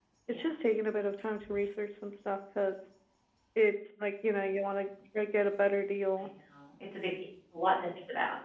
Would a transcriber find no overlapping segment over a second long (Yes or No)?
Yes